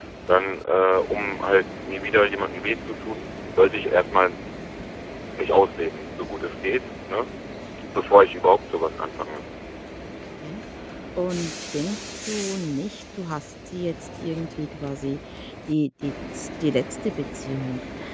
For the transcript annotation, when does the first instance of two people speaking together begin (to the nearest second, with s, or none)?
none